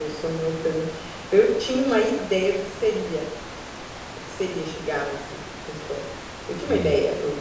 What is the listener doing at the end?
listening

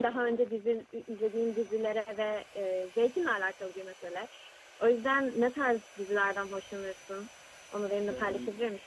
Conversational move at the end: taking over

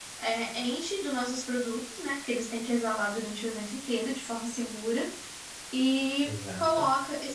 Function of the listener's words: listening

